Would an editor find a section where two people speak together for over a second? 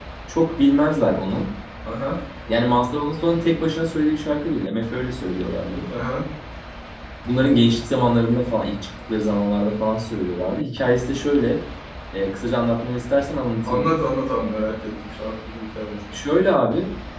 No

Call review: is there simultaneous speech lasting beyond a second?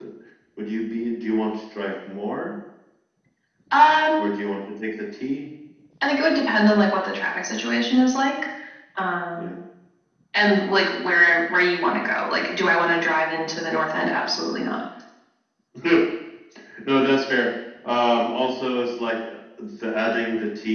No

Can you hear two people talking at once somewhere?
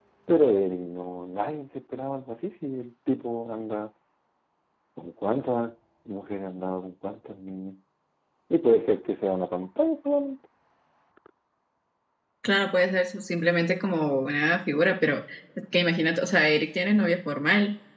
No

